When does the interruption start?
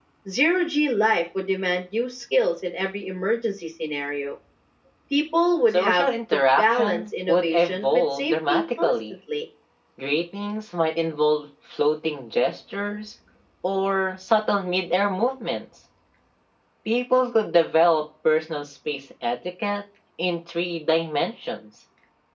6 s

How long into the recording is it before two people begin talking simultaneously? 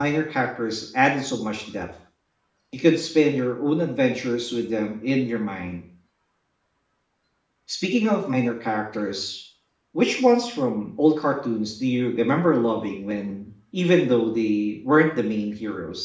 none

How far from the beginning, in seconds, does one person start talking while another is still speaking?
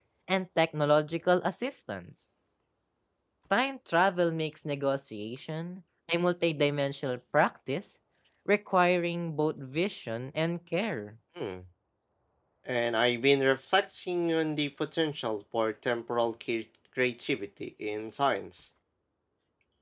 none

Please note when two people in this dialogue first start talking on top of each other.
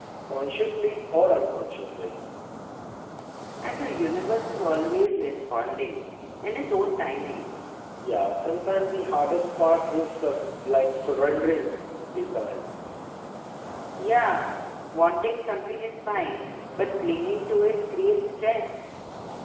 none

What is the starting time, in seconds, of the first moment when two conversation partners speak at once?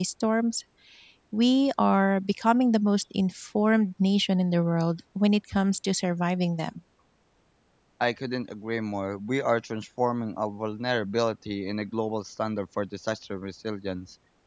none

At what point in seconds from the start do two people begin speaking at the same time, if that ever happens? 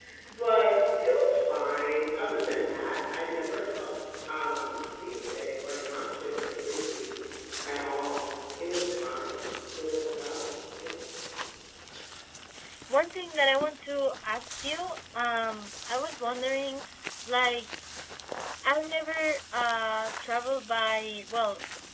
none

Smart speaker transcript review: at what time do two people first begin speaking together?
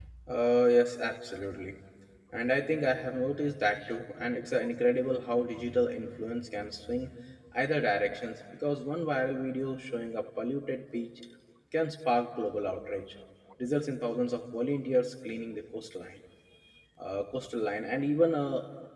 none

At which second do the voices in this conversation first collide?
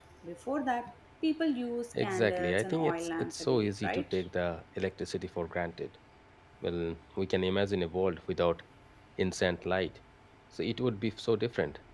2 s

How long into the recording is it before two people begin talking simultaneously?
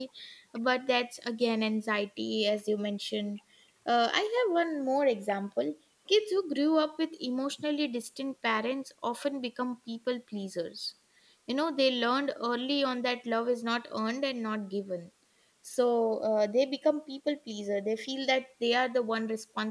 none

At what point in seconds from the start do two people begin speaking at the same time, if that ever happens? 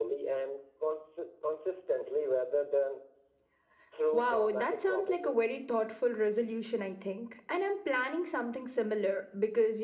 4 s

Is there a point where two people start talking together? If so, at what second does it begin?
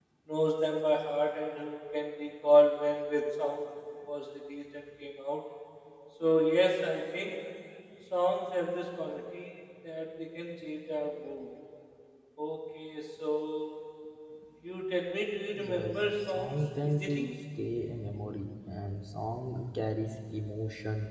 16 s

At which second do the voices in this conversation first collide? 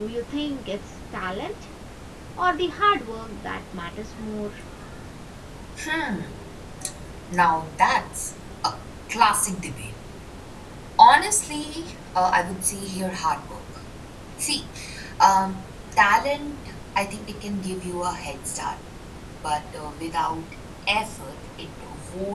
none

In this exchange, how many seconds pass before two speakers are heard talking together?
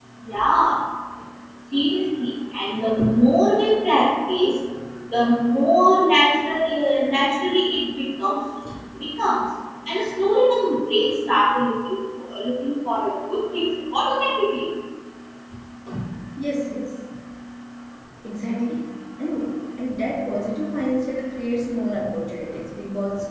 none

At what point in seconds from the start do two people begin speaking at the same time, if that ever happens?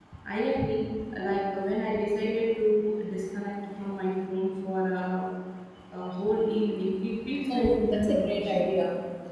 7 s

